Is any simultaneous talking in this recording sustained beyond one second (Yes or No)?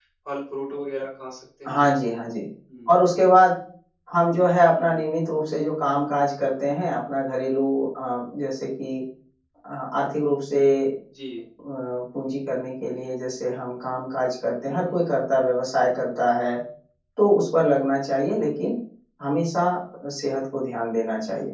No